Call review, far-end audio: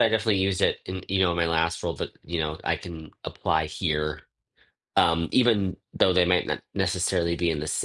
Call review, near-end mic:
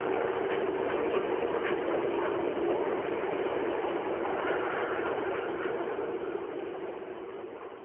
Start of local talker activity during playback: none

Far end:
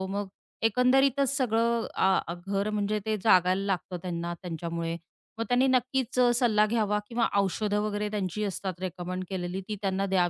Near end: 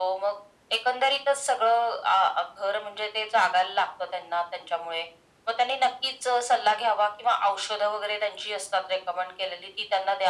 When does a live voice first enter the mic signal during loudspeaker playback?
none

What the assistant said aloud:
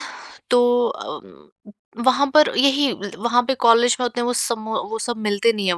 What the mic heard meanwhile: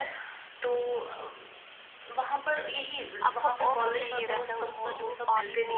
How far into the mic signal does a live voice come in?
3 s

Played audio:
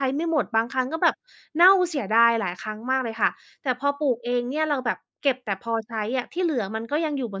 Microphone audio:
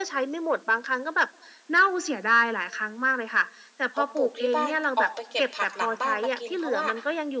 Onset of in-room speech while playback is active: 4 s

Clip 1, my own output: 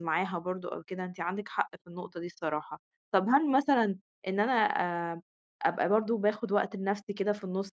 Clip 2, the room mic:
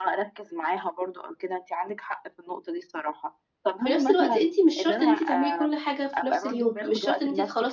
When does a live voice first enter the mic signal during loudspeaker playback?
4 s

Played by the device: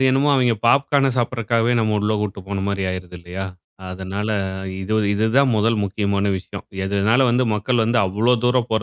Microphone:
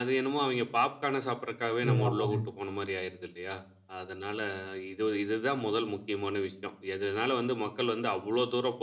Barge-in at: 2 s

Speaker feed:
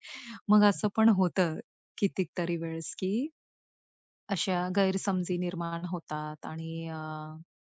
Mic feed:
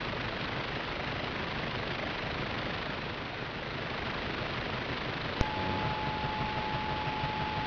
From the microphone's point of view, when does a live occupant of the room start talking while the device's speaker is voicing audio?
none

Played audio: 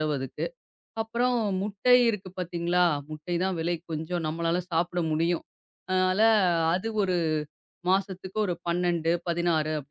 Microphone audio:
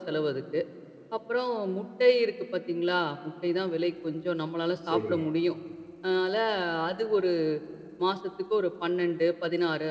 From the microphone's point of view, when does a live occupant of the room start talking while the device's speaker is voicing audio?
5 s

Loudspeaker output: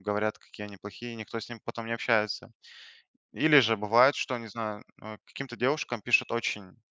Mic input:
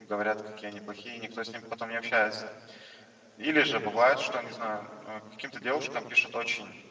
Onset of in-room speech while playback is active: none

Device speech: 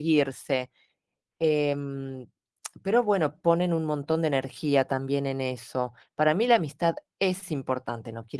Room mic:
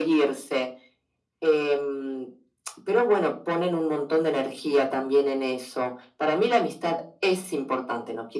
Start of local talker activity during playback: none

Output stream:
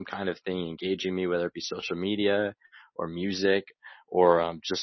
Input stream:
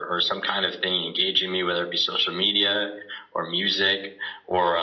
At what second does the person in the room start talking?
none

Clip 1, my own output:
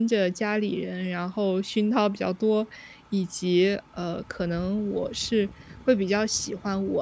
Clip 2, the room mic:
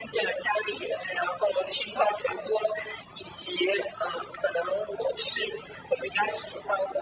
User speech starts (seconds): none

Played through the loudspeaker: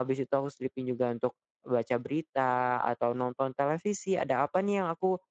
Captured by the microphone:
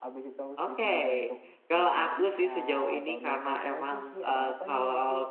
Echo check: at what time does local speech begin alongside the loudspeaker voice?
1 s

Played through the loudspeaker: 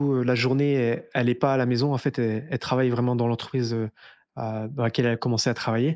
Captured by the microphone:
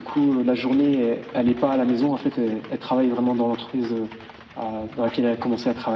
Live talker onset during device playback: none

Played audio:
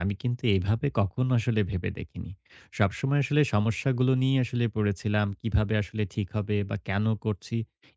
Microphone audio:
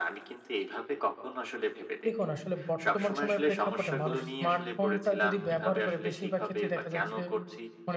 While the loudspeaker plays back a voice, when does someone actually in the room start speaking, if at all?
2 s

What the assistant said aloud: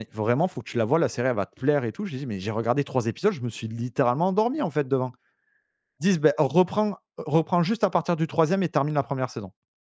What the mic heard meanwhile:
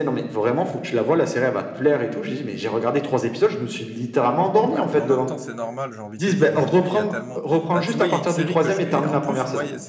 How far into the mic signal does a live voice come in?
5 s

